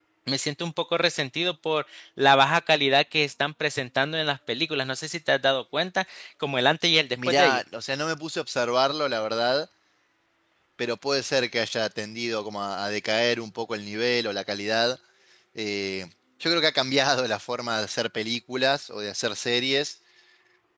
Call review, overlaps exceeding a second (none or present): none